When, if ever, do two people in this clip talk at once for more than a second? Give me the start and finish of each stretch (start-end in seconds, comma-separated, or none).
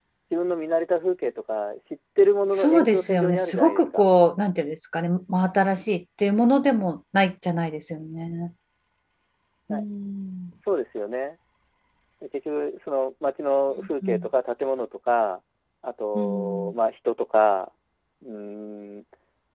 2.5-4.0